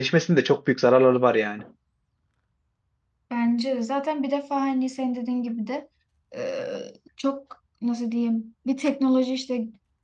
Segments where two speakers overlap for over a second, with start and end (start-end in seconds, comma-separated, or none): none